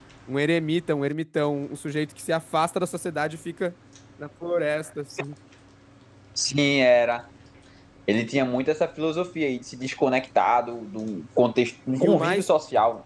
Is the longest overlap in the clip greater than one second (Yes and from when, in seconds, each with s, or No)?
No